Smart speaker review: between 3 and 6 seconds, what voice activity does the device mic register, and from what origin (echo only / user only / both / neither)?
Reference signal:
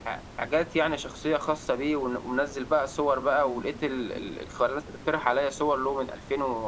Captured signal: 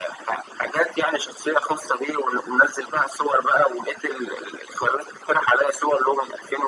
echo only